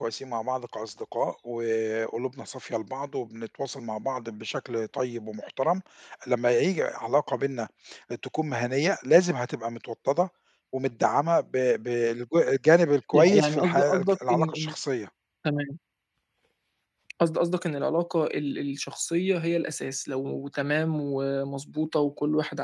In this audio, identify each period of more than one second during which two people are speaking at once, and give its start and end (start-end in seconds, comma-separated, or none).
13.1-14.7